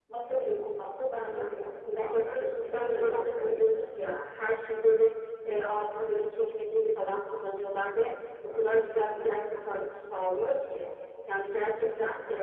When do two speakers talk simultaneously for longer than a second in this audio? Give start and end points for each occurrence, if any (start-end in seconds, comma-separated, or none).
1.9-3.8